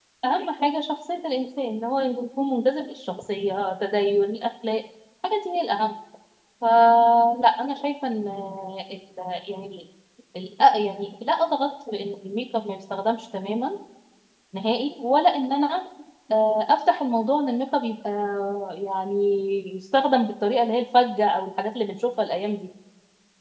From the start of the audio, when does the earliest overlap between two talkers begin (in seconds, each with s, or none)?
none